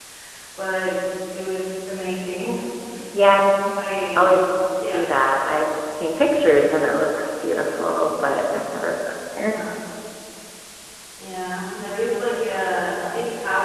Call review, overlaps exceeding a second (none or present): none